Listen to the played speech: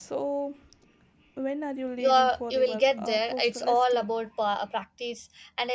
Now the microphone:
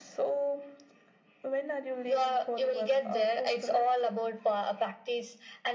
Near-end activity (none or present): none